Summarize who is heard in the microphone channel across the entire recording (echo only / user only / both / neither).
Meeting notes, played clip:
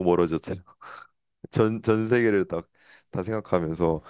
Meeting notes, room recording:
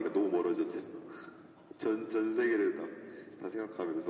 echo only